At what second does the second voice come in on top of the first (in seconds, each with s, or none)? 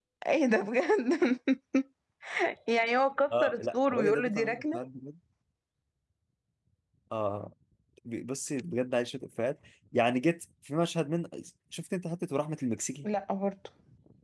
3.3 s